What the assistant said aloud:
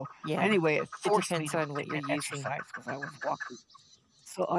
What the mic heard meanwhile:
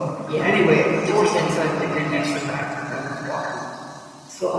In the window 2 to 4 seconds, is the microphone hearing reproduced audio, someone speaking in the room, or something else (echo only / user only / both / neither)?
echo only